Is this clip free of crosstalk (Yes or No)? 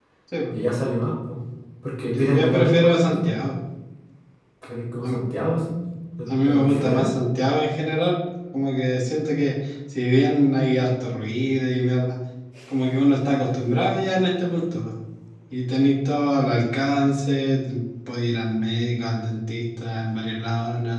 No